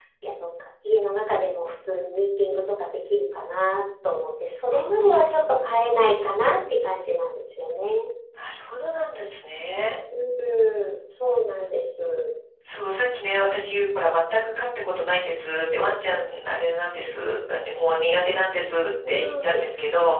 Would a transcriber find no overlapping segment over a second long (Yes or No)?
No